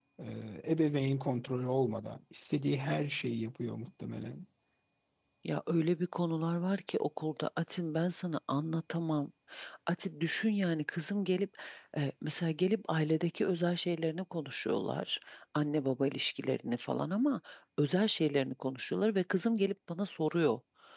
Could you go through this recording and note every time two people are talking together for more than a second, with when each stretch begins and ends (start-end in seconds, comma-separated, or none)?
none